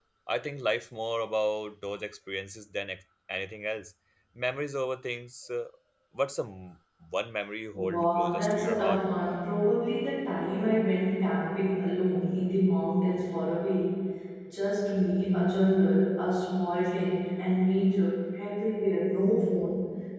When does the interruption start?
7.7 s

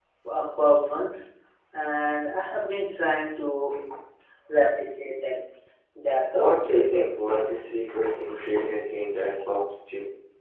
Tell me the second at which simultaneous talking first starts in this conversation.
6.3 s

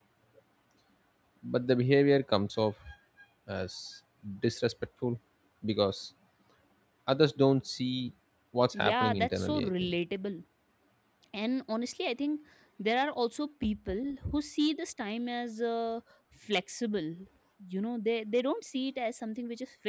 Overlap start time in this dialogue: 8.7 s

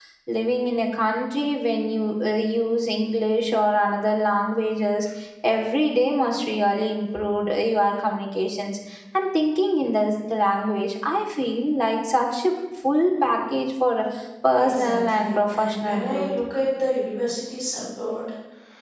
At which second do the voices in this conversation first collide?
14.5 s

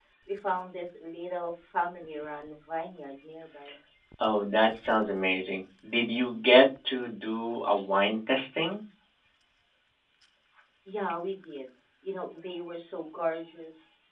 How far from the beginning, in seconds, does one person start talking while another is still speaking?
none

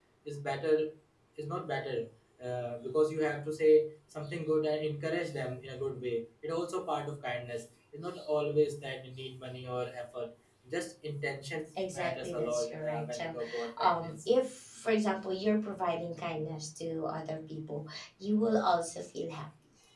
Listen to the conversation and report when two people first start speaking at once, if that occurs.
11.8 s

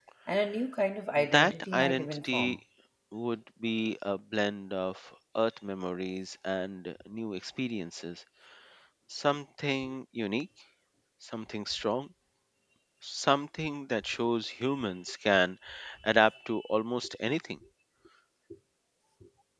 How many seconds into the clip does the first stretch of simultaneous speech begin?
1.2 s

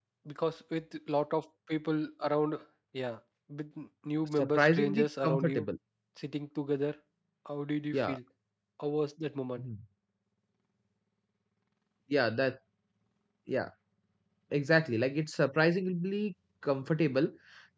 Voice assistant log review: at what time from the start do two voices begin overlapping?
4.3 s

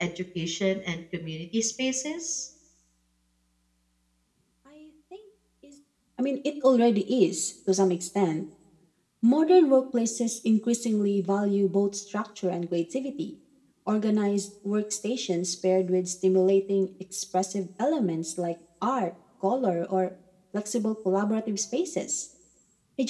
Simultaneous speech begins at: none

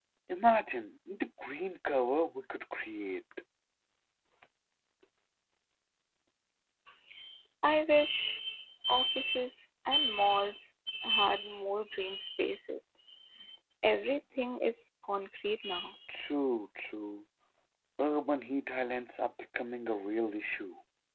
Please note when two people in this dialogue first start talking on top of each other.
none

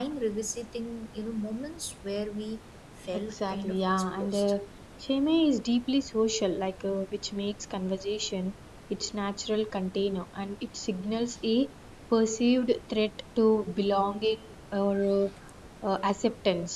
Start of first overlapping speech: 3.1 s

